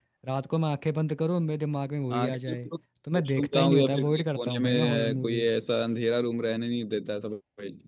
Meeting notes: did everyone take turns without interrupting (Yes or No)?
No